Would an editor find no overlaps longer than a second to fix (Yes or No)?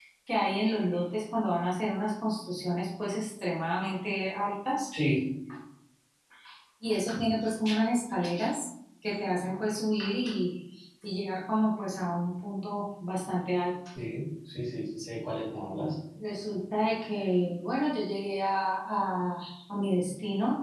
Yes